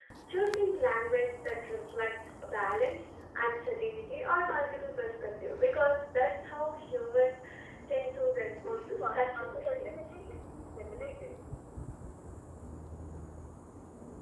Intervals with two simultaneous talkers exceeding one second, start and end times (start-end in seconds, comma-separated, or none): 8.6-10.1